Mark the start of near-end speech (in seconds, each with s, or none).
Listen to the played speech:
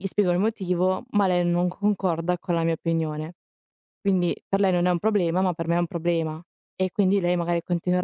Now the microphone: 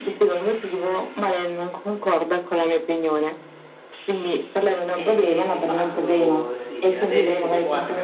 4.9 s